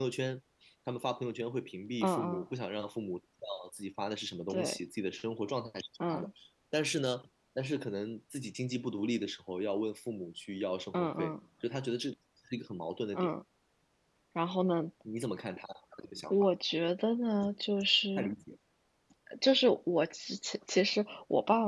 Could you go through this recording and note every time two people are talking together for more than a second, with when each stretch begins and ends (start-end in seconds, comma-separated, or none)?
none